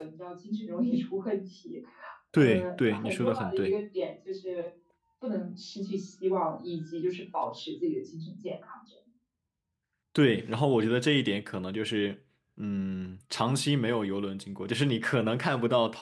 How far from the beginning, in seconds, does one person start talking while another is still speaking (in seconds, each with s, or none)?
2.4 s